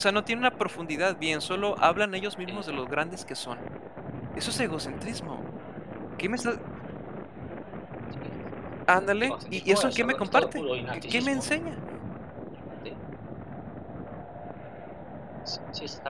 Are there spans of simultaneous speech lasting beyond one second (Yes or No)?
Yes